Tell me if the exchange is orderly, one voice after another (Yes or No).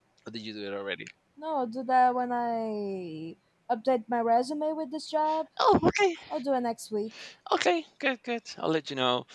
Yes